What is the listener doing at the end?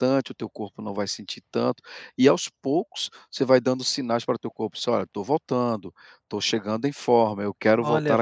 taking over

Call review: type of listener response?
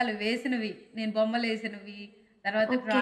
taking over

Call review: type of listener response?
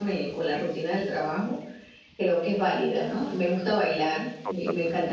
listening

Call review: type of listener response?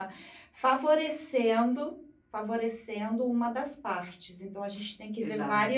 listening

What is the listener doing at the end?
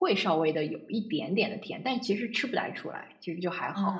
taking over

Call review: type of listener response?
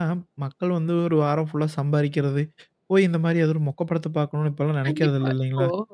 taking over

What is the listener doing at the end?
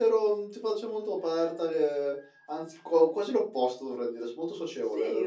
taking over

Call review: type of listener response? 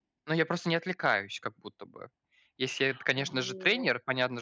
listening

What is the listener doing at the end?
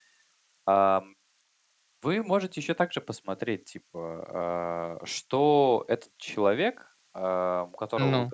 listening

